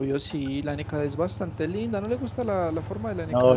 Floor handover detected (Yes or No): Yes